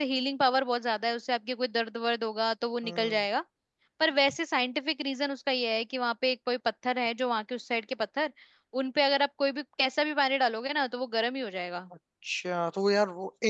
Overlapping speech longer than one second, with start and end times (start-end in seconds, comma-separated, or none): none